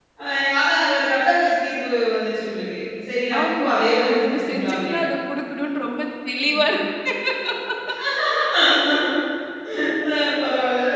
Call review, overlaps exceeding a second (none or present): present